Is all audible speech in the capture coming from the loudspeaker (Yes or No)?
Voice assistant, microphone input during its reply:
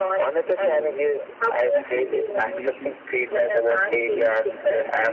No